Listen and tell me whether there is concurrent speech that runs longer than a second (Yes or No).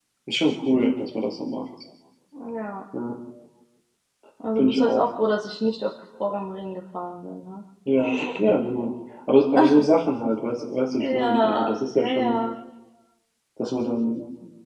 Yes